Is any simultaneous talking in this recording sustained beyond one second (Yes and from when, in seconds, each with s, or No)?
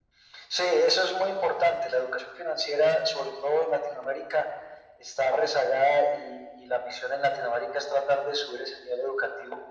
No